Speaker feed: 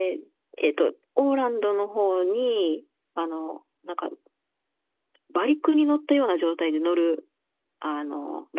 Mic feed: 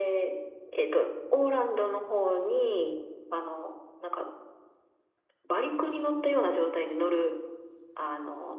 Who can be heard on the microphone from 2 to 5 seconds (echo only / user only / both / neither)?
echo only